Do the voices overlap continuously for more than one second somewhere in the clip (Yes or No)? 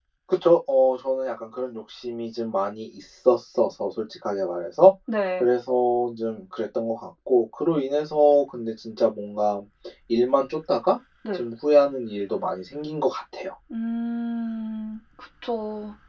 No